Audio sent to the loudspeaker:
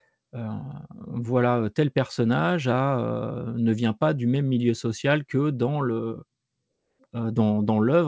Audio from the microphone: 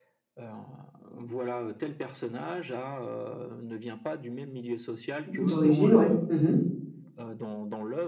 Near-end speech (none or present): present